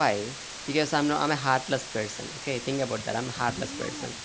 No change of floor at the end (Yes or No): Yes